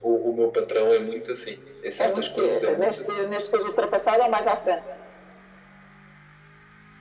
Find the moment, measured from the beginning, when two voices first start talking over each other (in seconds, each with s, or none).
2.0 s